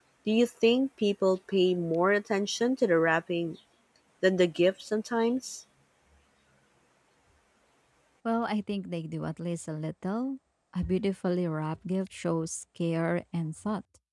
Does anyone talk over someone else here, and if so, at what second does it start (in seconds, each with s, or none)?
none